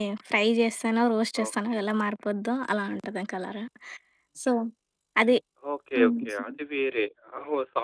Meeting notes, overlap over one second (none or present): none